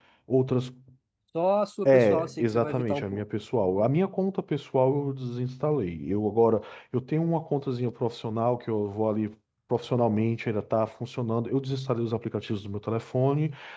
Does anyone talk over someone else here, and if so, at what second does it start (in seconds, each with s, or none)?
1.9 s